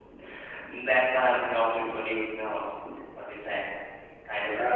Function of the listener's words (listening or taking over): taking over